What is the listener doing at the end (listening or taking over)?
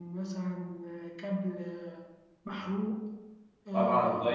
taking over